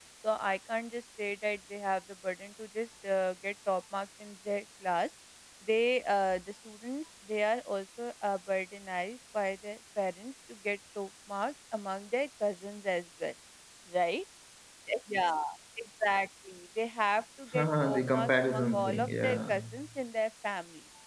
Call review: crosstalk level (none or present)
present